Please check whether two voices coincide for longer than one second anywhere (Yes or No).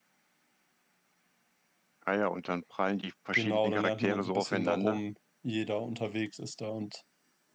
Yes